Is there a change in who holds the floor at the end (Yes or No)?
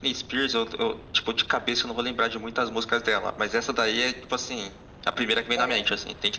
Yes